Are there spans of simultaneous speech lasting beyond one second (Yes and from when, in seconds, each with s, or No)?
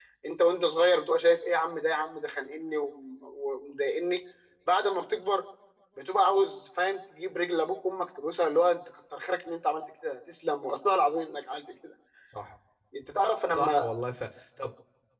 No